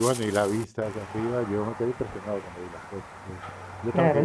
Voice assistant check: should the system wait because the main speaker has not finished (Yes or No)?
No